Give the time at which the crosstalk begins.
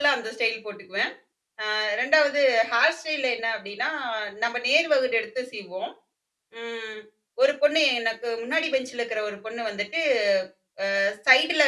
none

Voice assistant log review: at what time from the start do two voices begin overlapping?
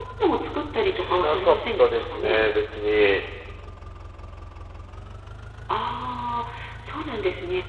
0.8 s

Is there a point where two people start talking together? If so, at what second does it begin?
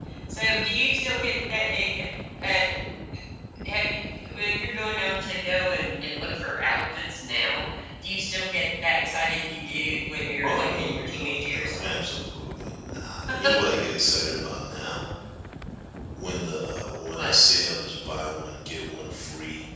10.4 s

